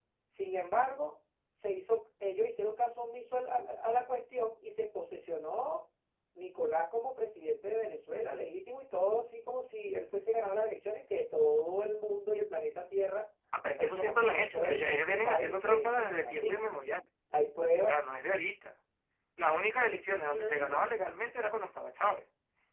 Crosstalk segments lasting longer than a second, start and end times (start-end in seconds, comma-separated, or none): 13.8-16.6